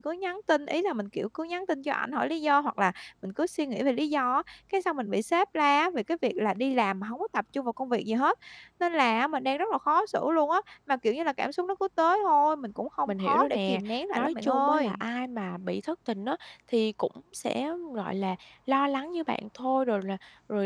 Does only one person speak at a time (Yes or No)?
No